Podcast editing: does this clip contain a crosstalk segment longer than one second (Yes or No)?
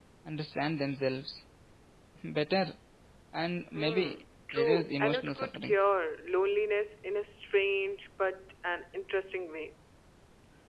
Yes